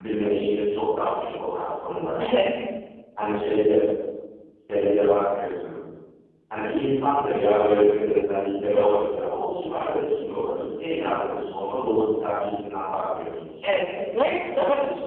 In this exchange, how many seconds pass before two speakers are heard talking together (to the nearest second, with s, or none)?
none